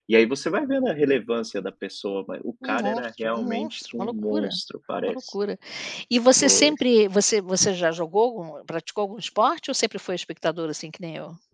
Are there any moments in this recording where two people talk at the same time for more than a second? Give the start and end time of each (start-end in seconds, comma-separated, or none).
2.6-4.5